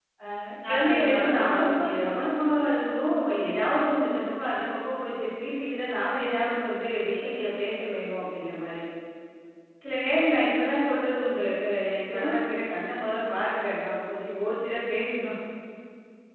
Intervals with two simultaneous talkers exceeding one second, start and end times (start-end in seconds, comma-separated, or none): 0.7-2.3